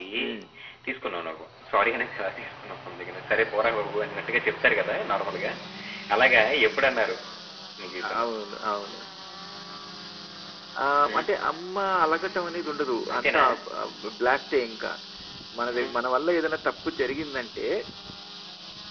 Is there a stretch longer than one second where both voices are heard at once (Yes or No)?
No